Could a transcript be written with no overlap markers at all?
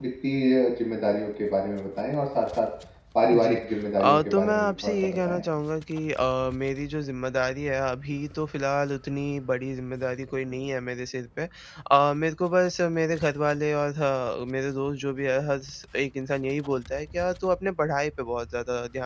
No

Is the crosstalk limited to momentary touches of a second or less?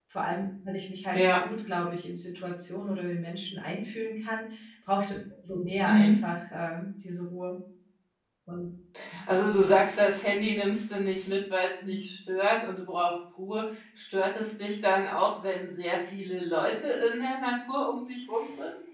Yes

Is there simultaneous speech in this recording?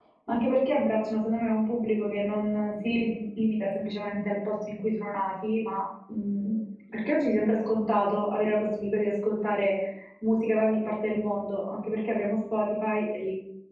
No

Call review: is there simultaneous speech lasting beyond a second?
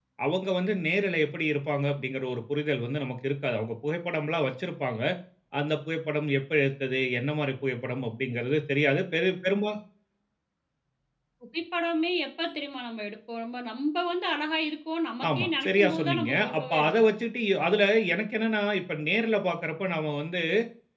Yes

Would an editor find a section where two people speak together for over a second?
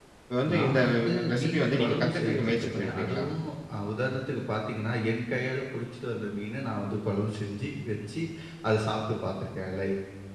Yes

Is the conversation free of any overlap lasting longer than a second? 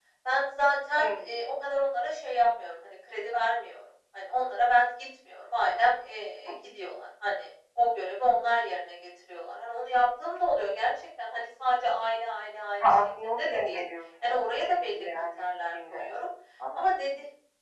No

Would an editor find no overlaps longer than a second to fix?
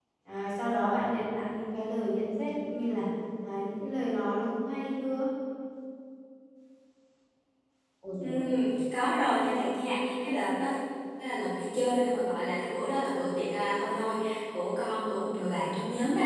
Yes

